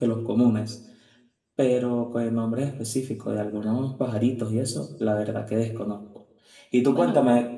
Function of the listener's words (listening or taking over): listening